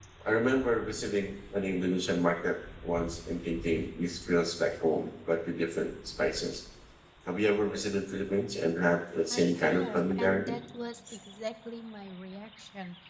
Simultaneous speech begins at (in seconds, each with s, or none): 9.3 s